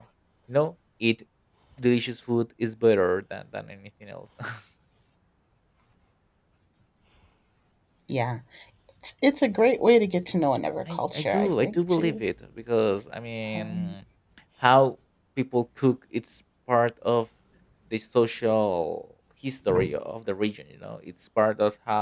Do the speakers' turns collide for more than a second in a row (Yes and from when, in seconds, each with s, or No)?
Yes, from 10.9 s